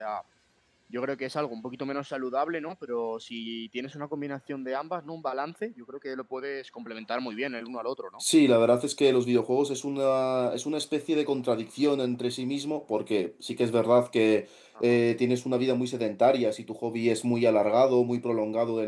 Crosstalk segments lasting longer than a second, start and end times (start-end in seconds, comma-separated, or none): none